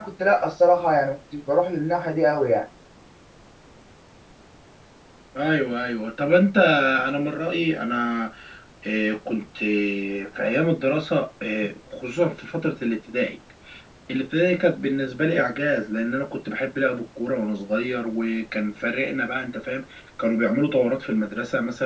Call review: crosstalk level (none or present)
none